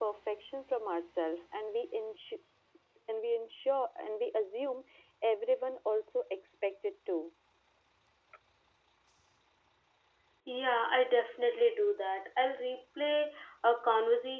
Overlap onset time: none

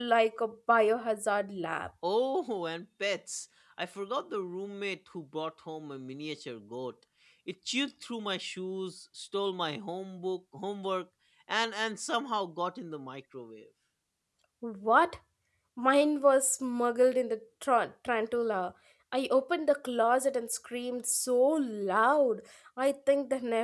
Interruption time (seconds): none

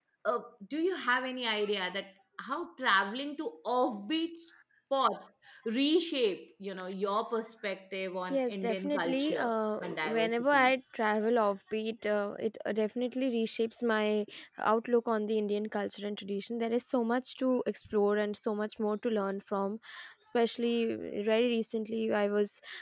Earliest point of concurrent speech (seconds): 8.3 s

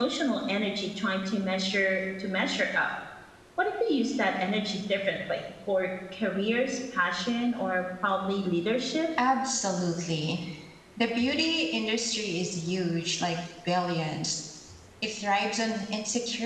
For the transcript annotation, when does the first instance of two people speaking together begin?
none

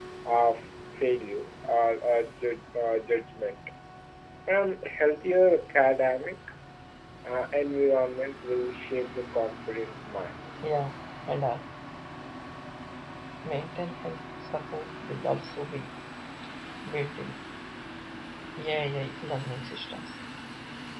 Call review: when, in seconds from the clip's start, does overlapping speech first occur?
none

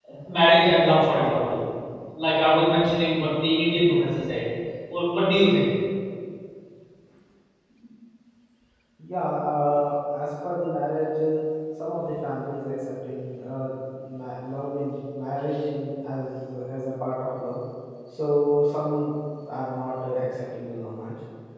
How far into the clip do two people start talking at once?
none

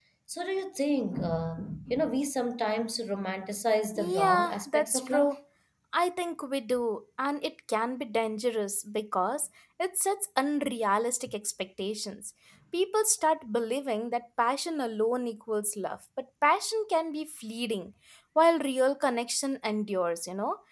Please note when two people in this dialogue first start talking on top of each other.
4.0 s

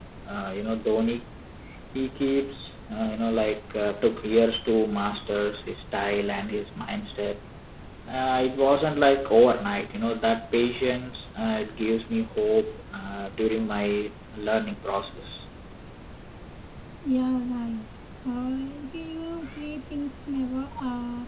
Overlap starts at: none

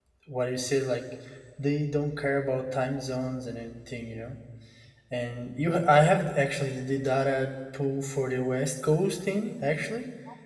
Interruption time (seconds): none

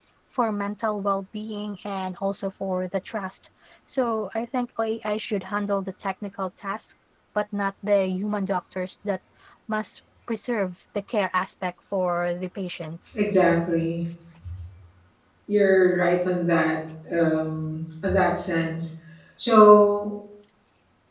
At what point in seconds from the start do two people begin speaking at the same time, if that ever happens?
none

